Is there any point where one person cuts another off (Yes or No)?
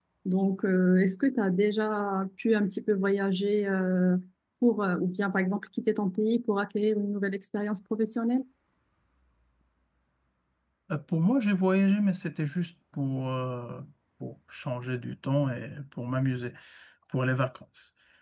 No